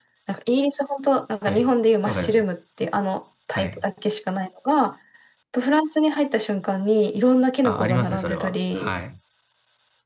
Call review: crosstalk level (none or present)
present